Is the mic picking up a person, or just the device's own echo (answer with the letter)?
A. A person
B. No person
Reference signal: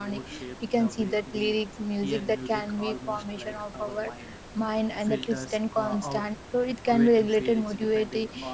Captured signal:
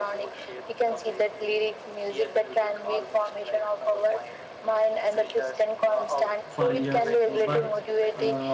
A